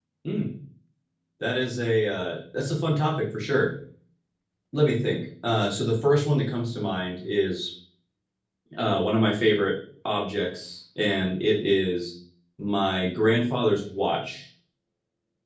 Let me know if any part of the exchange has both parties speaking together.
No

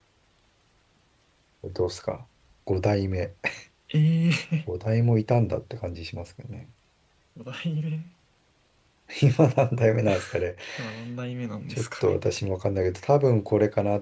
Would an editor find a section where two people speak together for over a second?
No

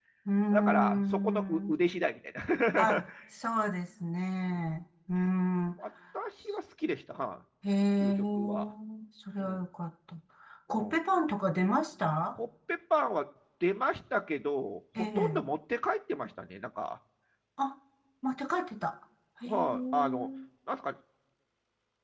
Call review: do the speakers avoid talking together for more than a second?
No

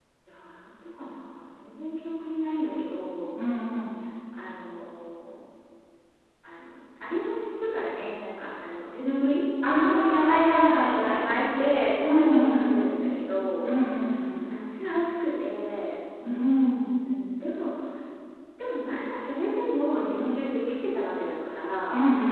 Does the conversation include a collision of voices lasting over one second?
Yes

